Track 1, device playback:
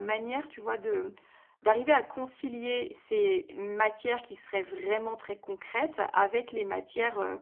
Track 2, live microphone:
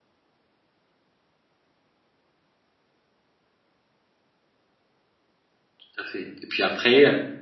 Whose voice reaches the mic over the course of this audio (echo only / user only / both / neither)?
user only